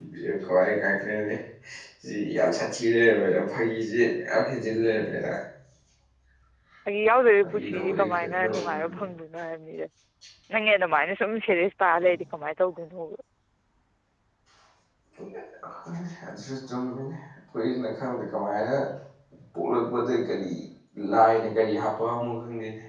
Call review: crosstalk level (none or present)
present